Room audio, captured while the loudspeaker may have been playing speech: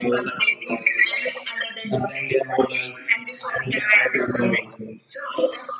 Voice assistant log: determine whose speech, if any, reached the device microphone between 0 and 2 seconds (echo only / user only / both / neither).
echo only